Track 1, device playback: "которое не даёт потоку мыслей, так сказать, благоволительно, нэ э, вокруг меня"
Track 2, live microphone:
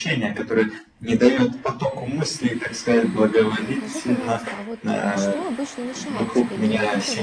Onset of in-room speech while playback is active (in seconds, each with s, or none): 3.6 s